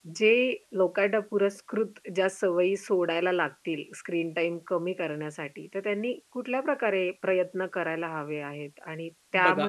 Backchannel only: Yes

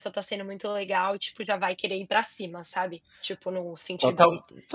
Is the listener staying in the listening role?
No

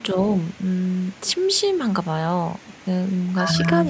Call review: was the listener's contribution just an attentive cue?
Yes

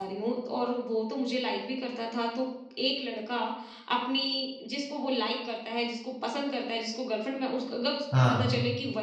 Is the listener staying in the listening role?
Yes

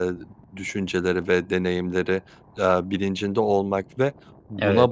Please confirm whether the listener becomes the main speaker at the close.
No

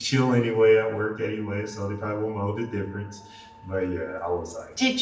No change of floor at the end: No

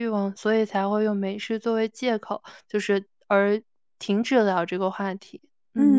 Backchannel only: No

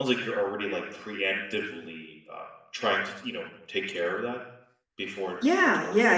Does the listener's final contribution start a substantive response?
Yes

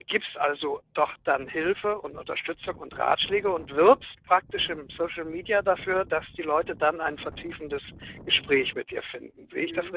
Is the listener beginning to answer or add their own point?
Yes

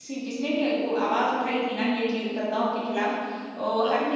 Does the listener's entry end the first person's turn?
No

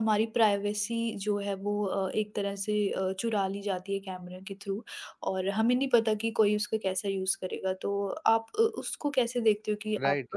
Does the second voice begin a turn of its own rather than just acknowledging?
Yes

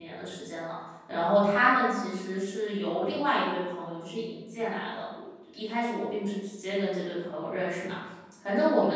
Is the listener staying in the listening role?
Yes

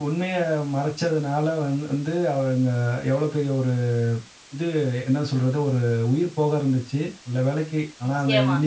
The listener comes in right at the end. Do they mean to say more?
No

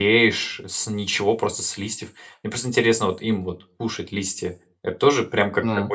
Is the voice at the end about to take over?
No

